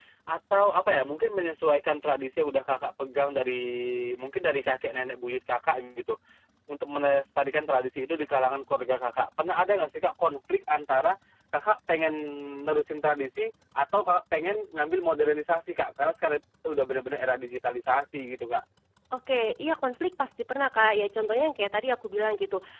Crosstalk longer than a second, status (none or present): none